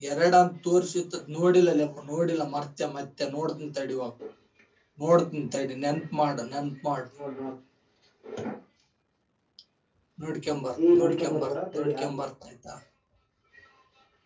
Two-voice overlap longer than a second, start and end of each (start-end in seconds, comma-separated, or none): 10.9-12.2